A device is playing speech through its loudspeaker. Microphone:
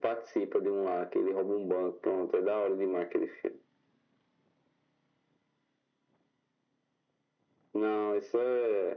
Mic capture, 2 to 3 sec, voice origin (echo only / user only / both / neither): echo only